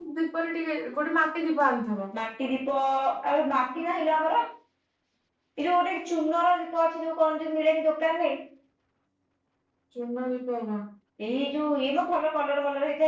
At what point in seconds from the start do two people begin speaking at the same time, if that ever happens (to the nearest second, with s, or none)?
none